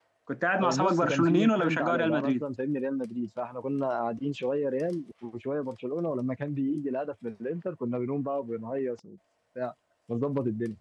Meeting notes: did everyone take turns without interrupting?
No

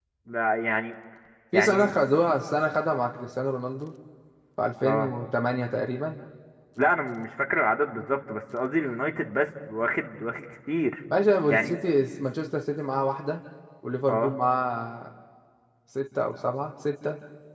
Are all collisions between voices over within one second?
Yes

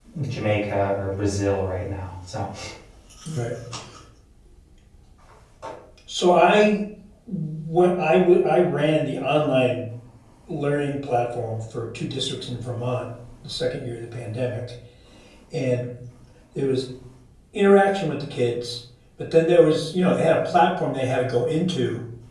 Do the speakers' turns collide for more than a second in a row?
No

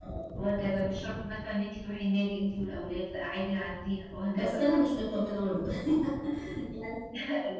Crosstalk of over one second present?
No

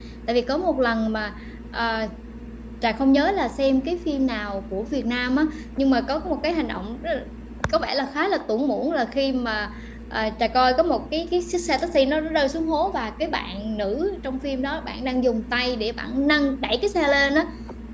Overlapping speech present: No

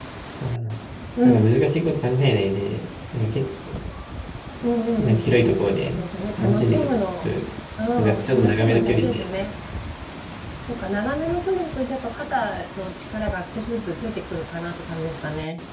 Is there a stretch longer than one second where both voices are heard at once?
Yes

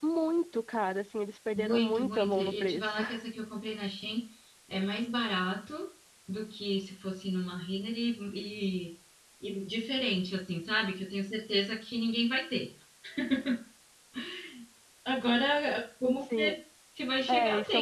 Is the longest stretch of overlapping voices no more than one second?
No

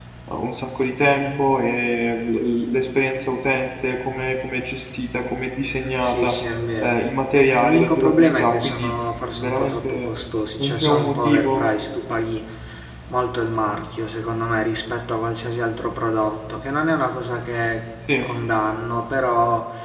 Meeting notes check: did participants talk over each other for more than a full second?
Yes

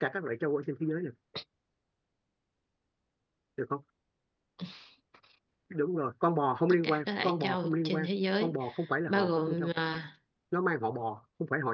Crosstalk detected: Yes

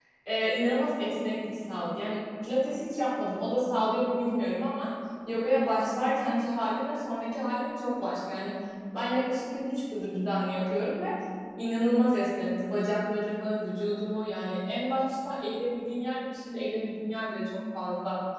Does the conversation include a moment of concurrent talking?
No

